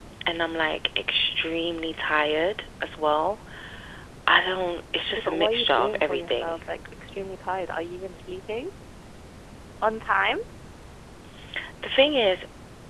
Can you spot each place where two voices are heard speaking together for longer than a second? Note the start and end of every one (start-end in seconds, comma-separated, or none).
5.1-6.6